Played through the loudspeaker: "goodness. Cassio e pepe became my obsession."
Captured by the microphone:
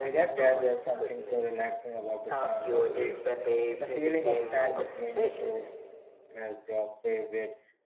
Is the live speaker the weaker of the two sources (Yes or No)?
No